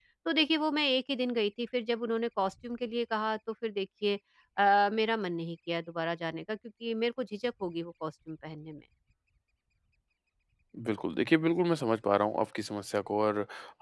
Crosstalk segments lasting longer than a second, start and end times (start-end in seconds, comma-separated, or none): none